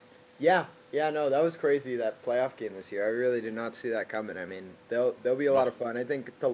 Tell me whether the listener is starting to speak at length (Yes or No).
No